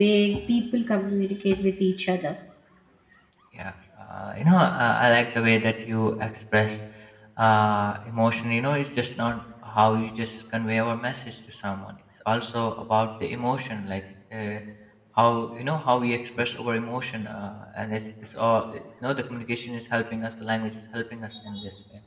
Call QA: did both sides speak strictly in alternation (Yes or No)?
Yes